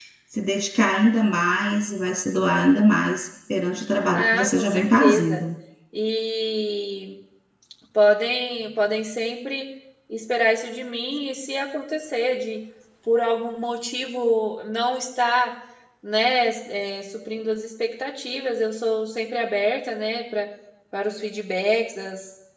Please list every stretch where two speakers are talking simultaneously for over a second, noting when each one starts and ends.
4.1-5.4

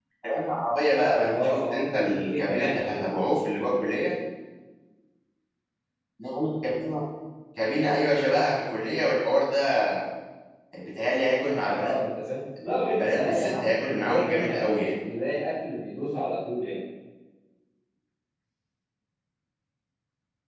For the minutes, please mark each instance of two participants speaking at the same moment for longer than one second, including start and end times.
1.2-3.0, 12.7-14.9

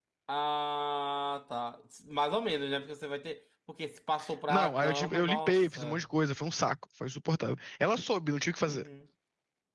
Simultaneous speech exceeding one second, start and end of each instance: 4.5-6.0

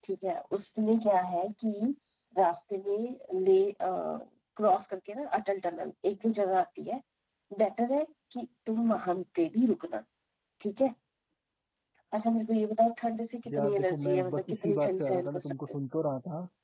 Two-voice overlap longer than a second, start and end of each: 13.5-15.8

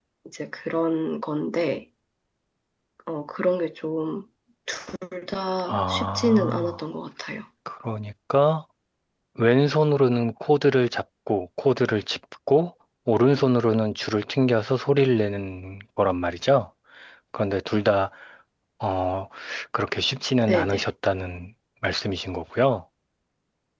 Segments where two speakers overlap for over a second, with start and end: 5.6-6.8

